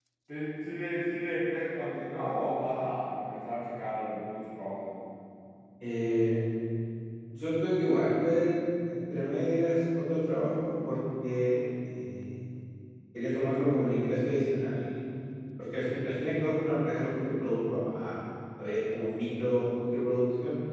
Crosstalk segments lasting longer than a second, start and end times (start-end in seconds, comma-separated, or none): none